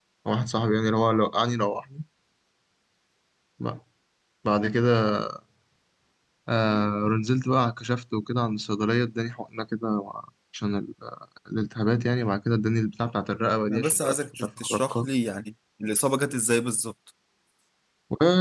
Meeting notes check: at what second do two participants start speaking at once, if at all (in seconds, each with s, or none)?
13.7 s